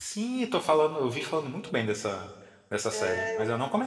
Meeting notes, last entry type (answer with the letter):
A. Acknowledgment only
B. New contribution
B